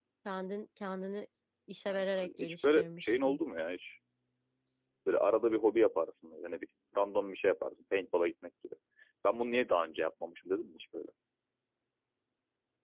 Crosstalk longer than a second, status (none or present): present